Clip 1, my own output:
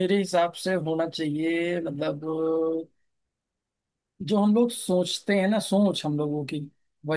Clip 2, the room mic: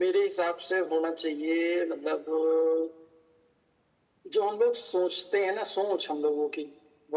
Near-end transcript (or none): none